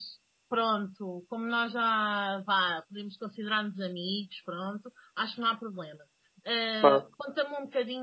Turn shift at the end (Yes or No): No